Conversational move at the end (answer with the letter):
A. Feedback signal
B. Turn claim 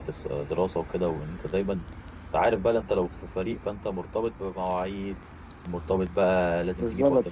A